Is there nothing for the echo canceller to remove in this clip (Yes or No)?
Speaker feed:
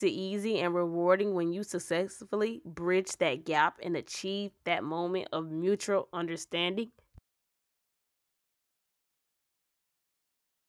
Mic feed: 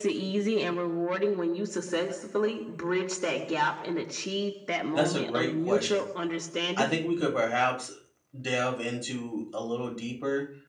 No